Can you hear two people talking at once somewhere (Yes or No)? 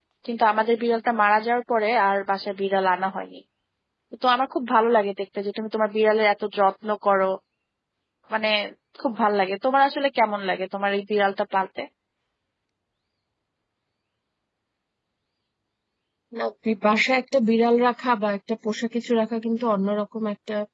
No